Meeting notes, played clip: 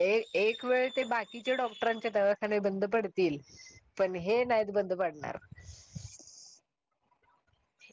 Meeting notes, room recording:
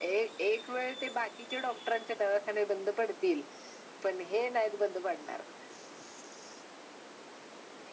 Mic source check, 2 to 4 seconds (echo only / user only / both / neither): echo only